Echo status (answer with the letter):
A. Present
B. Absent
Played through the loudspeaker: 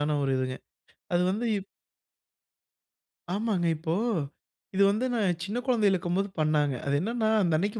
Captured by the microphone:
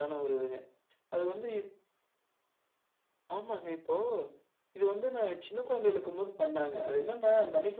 A